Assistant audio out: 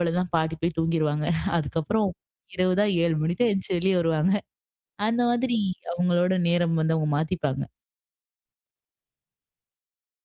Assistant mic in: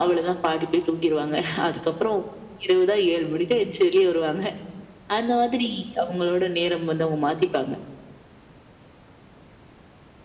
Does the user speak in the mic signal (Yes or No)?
No